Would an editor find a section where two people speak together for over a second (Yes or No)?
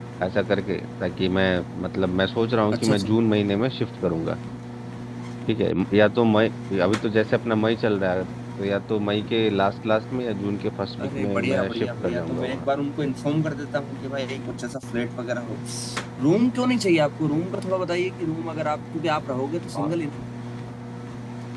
Yes